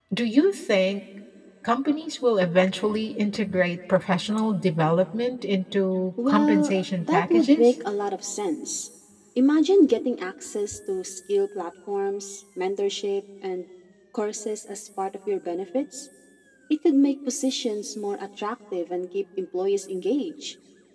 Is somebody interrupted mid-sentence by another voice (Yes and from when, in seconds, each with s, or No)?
Yes, from 6.2 s